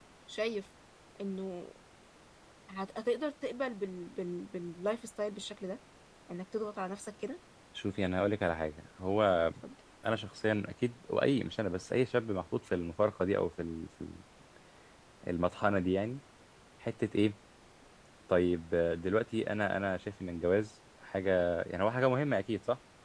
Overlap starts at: none

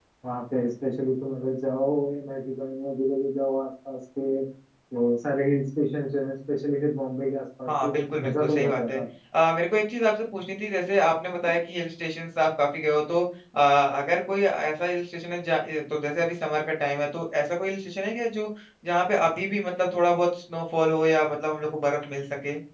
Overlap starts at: 7.7 s

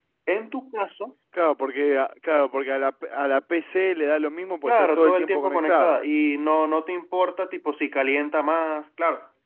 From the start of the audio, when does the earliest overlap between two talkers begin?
4.7 s

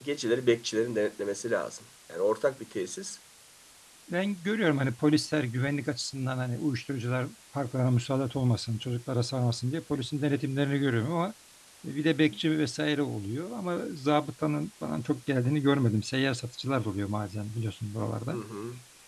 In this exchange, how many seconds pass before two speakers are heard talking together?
none

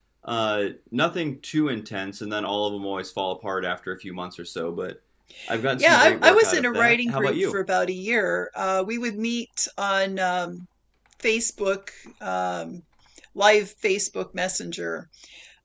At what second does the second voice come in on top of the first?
5.8 s

